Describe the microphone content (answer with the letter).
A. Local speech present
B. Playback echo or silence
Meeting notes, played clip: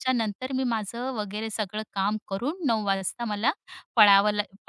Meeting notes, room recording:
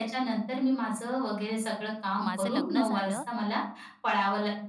A